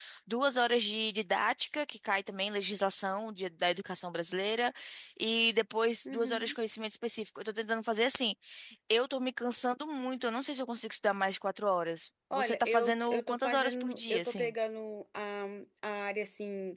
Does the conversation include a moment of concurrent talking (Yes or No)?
Yes